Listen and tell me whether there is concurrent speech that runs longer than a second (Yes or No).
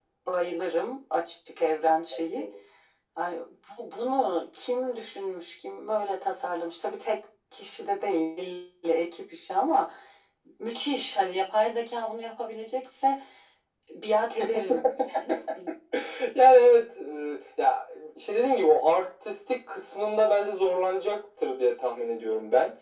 No